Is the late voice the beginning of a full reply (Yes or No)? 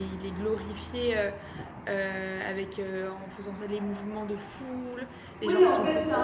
Yes